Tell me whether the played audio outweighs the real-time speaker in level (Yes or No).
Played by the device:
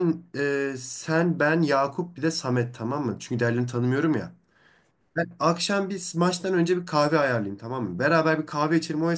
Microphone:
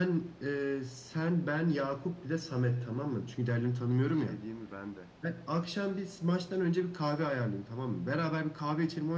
Yes